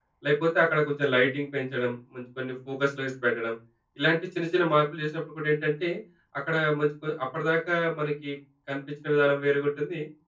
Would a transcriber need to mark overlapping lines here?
No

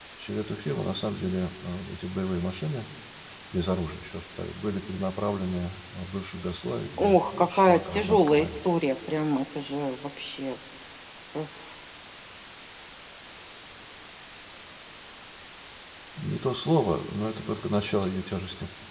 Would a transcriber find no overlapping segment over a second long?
No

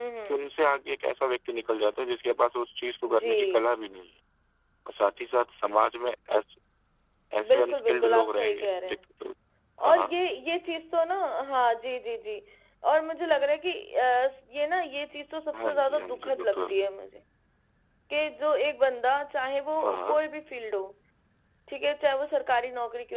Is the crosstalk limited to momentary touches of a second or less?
No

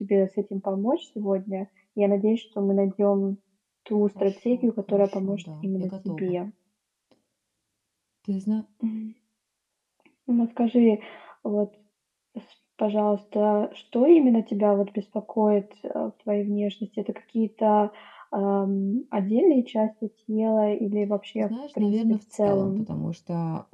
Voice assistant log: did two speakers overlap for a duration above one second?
Yes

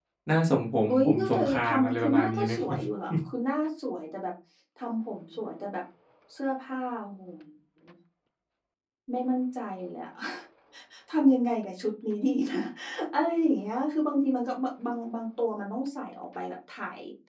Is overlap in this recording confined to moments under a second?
No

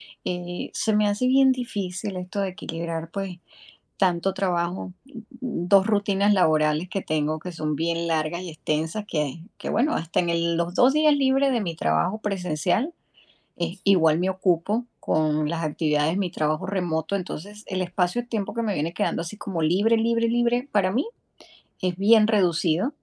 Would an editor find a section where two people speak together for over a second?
No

